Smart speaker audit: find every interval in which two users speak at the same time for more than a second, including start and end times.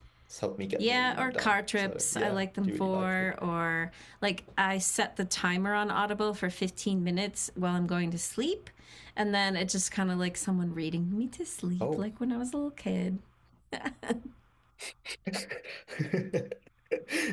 0.8-3.3

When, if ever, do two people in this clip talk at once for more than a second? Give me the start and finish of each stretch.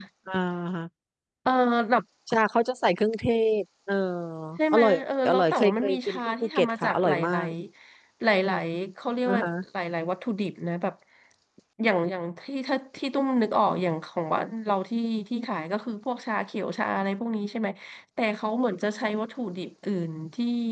5.3-7.5

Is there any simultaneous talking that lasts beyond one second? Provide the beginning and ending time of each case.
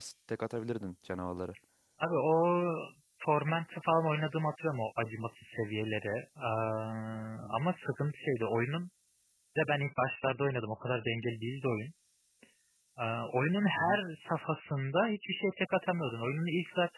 none

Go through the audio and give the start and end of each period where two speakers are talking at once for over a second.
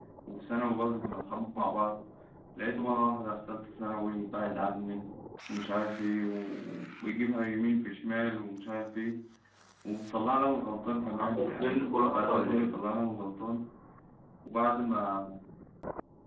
11.1-12.7

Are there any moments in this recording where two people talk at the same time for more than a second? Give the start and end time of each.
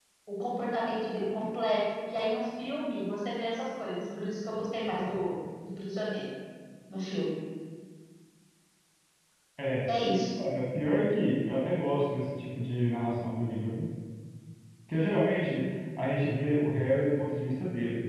none

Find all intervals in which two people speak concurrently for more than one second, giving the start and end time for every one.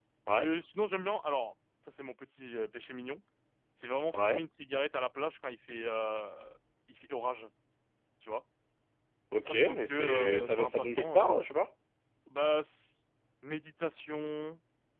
9.4-11.3

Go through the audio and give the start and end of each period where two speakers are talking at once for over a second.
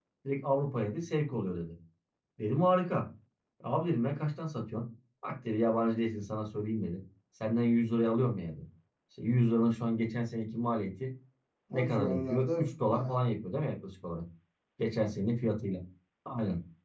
11.7-13.3

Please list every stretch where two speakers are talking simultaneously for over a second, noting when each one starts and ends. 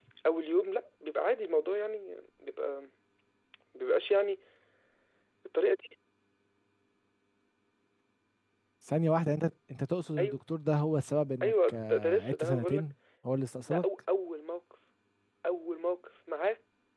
11.4-12.8

